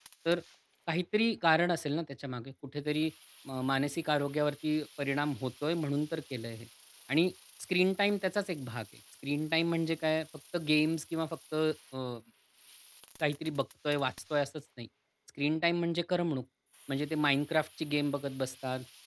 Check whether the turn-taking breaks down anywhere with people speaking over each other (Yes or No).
No